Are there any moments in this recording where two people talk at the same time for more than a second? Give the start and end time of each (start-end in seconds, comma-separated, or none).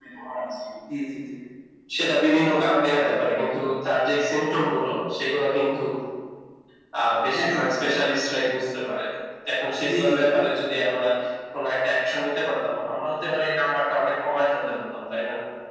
none